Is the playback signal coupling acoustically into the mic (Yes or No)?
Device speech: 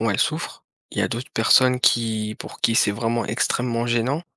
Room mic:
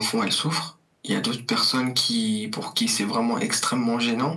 Yes